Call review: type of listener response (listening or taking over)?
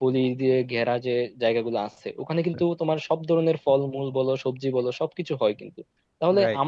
listening